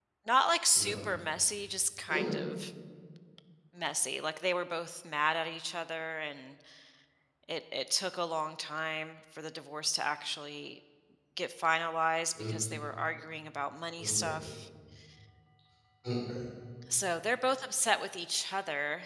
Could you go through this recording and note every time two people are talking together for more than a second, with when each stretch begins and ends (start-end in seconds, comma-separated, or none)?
none